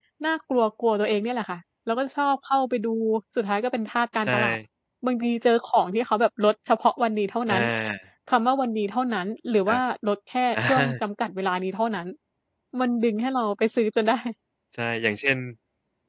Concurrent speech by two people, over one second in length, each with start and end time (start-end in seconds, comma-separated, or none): none